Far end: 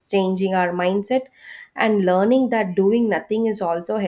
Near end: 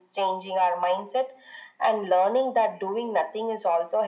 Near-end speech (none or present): none